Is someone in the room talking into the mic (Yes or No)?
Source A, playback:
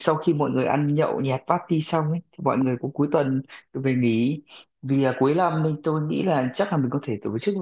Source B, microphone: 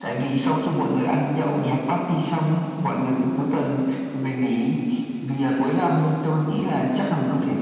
No